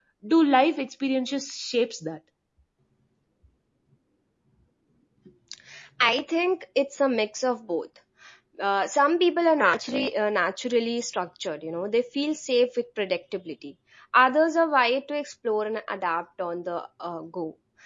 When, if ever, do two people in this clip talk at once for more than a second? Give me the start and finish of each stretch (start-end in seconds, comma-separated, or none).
none